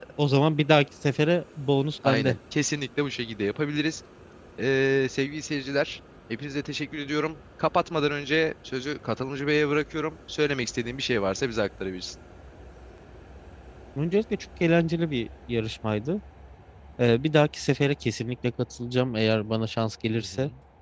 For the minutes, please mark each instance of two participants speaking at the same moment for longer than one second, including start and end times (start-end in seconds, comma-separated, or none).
none